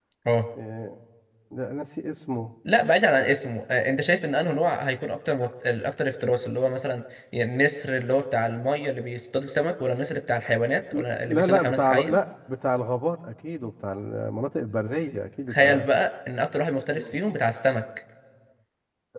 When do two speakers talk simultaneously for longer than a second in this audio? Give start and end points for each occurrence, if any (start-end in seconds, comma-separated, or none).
10.9-12.2